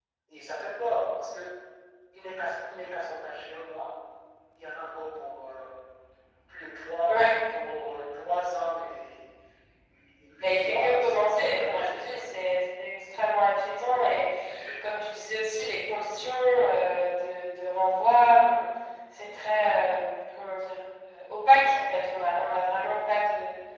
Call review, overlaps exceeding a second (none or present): present